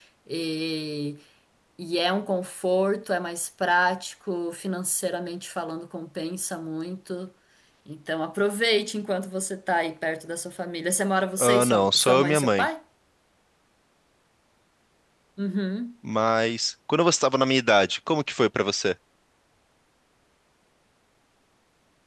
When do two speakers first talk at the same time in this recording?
11.4 s

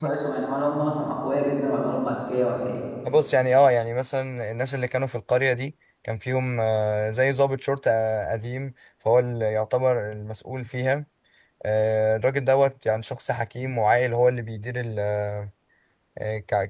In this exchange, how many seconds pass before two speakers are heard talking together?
none

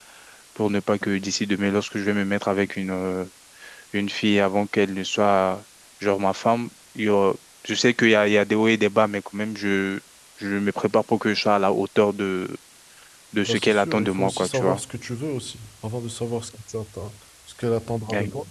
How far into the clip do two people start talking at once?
13.4 s

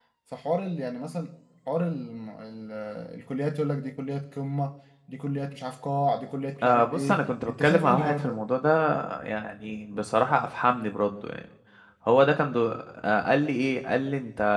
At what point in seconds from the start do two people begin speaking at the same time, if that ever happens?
6.6 s

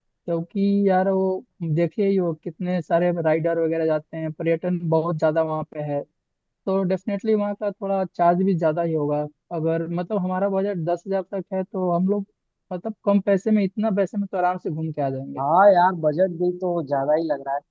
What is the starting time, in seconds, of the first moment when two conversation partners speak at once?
none

